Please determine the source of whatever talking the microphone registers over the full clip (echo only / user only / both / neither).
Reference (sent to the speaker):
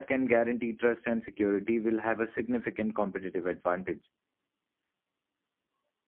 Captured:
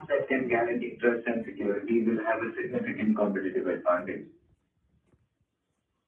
echo only